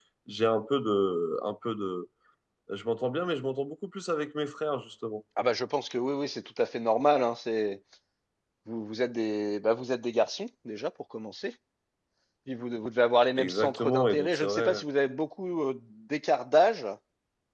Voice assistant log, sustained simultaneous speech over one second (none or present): present